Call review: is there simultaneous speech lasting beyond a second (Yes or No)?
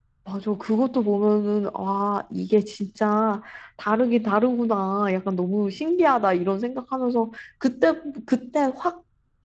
No